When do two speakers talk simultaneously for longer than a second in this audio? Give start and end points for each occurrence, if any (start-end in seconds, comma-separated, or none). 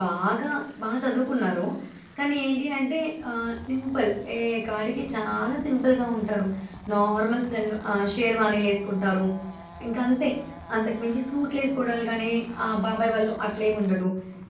none